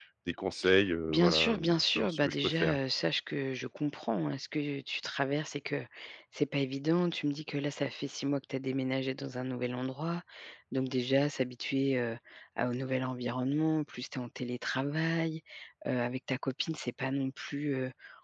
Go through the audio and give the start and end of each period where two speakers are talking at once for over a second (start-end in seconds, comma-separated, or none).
1.1-2.8